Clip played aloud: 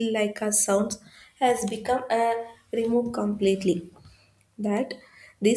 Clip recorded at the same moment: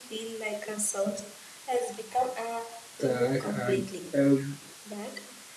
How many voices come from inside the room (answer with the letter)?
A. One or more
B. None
A